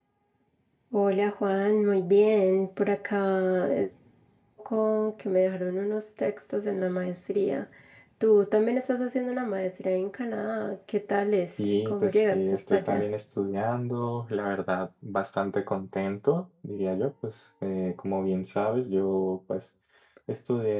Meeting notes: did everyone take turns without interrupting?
No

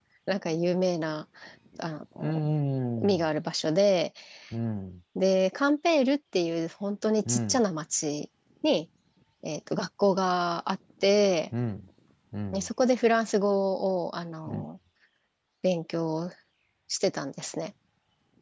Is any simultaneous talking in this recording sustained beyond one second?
No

